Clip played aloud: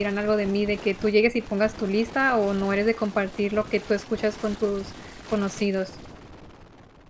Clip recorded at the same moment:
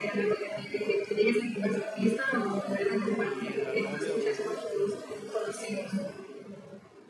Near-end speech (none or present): present